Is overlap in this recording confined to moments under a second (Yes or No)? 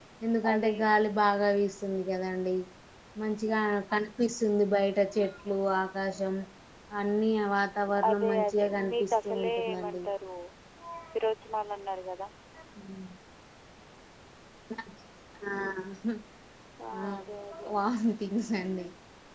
No